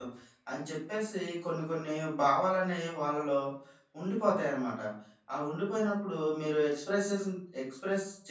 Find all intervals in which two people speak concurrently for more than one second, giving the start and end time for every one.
none

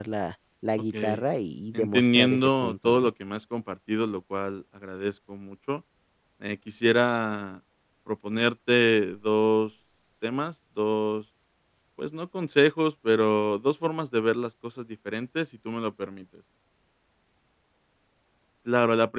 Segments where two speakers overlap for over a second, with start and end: 1.7-3.1

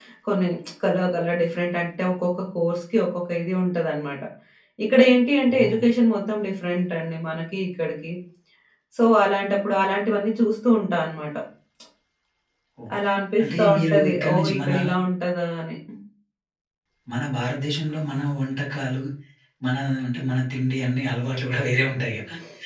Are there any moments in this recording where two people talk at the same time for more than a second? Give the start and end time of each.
13.4-14.7

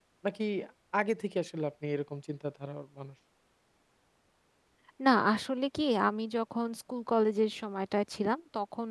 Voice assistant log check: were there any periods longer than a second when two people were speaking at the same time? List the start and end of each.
none

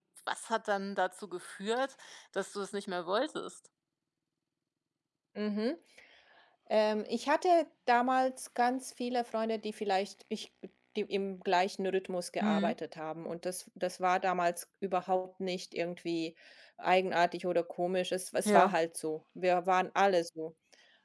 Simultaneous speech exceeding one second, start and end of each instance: none

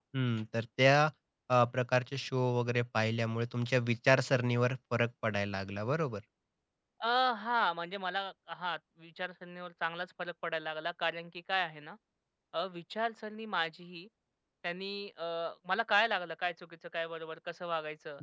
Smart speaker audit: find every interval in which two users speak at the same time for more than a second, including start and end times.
none

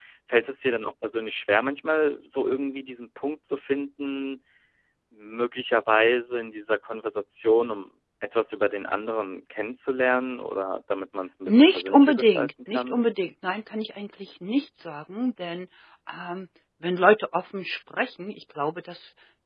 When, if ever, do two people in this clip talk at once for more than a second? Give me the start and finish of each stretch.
11.5-13.0

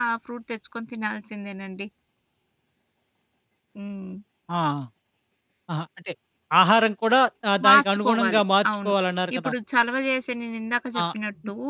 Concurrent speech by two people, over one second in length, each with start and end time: 7.6-8.9

